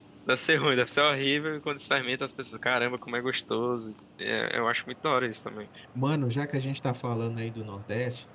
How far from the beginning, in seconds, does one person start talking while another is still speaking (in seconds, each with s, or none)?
none